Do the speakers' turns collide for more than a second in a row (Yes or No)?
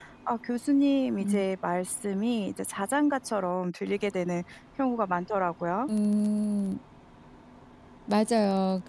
No